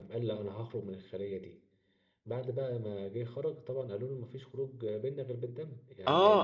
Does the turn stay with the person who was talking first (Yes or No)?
No